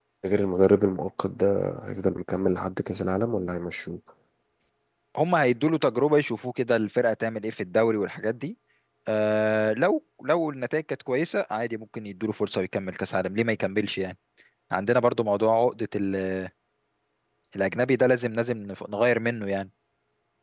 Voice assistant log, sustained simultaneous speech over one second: none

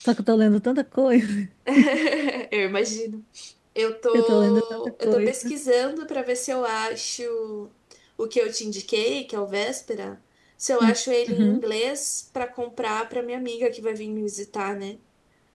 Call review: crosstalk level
present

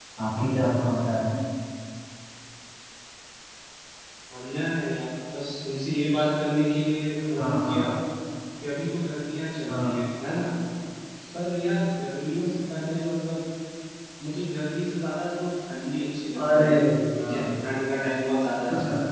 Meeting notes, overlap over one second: none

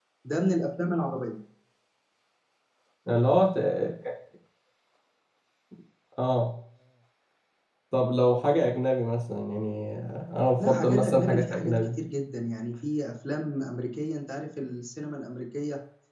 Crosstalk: present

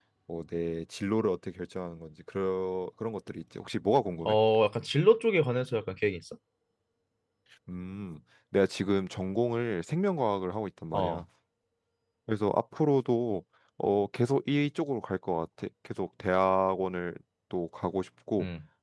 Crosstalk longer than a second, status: none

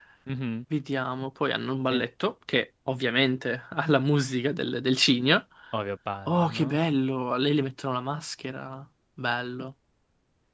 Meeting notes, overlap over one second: none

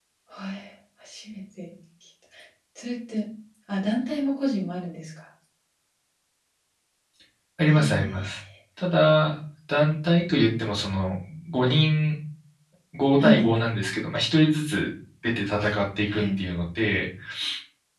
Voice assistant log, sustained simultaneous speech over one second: none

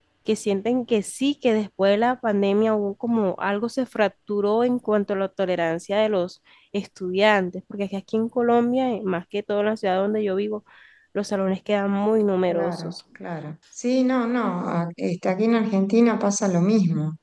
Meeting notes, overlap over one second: none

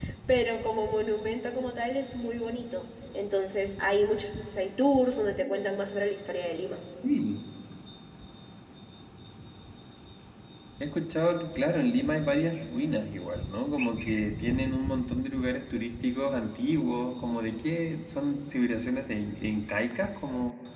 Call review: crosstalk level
none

